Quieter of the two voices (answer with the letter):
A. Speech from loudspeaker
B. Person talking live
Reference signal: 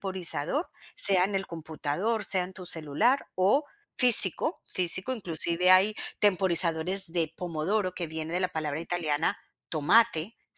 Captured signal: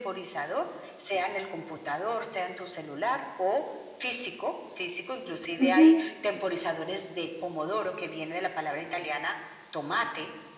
A